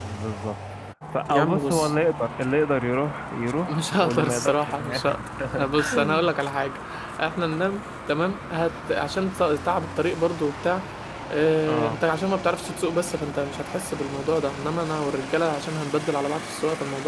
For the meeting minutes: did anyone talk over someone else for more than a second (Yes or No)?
Yes